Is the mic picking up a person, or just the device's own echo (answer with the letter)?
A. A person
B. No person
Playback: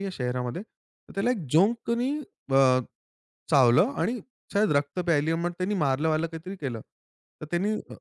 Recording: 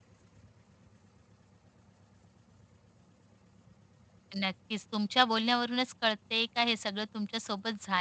A